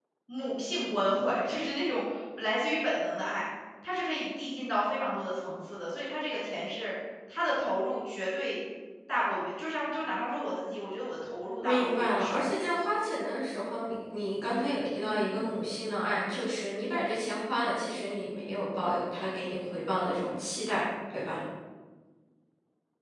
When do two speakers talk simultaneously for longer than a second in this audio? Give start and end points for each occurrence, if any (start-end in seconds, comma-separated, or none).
11.6-12.8